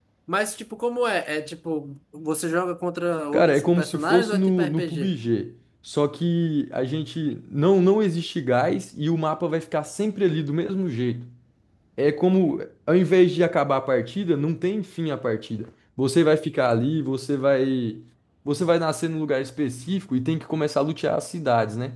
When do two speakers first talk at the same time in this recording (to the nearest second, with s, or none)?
3 s